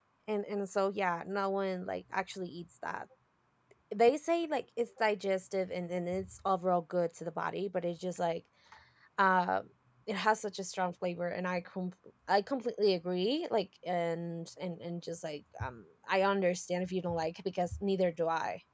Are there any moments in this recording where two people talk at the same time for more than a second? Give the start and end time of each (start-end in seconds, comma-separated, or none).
none